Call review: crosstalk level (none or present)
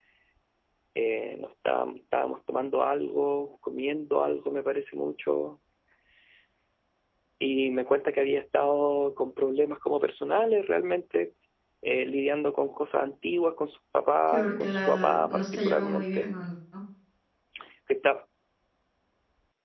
present